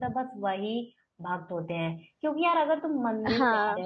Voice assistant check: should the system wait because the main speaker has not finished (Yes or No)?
Yes